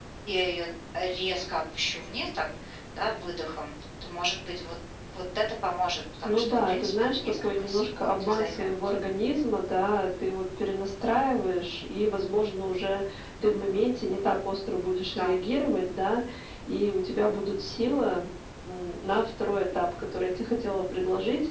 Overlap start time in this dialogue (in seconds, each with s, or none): 6.2 s